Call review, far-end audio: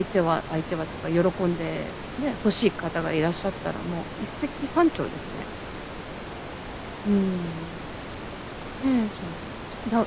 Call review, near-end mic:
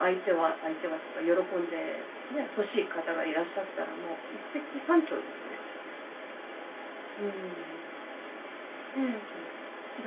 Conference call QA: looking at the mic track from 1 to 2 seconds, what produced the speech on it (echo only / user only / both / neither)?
echo only